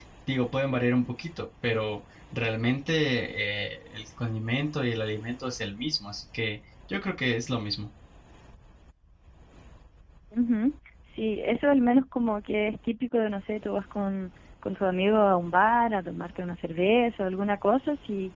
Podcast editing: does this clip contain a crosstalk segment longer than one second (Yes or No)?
No